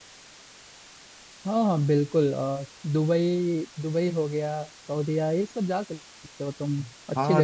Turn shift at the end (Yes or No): Yes